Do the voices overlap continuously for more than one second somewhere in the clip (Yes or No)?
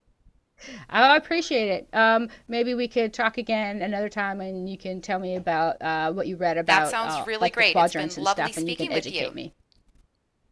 Yes